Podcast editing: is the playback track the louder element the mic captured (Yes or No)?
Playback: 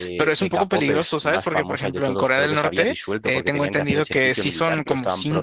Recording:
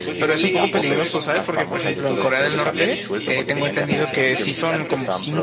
Yes